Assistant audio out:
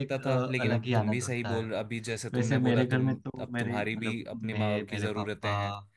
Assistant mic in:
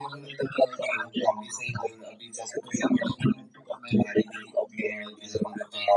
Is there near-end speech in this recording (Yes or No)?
No